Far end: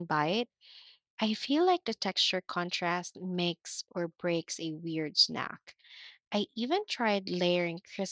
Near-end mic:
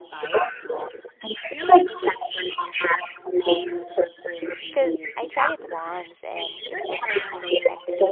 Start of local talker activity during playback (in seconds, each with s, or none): 4.7 s